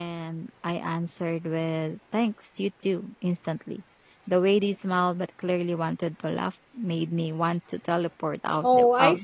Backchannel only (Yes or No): No